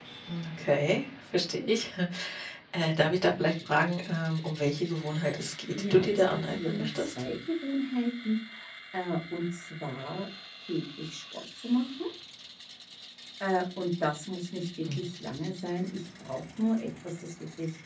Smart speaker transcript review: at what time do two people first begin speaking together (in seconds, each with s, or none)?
5.8 s